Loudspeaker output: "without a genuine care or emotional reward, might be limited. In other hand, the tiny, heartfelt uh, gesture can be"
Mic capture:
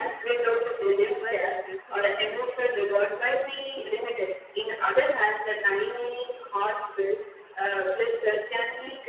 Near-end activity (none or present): present